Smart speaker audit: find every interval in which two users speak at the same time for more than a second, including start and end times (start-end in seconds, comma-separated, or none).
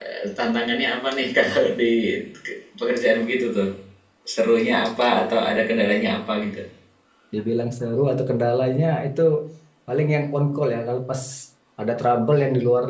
none